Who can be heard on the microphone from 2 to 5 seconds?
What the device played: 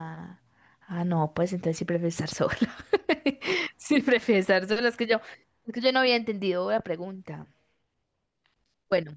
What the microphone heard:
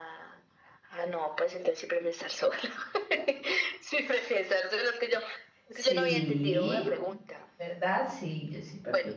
echo only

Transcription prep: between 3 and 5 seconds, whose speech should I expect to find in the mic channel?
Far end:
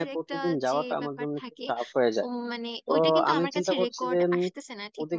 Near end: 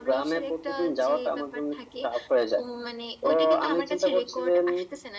echo only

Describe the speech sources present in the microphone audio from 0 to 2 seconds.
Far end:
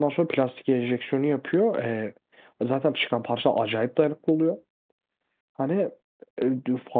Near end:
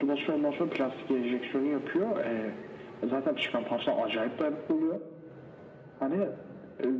echo only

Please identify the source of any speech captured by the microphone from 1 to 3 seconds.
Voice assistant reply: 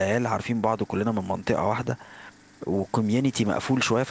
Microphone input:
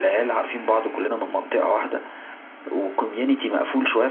echo only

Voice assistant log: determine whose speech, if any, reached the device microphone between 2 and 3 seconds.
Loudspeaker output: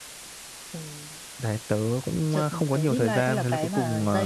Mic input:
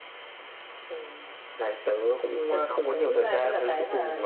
echo only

